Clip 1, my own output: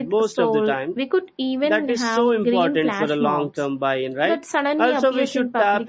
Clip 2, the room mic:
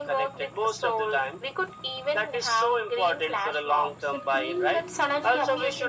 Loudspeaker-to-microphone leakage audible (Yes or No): Yes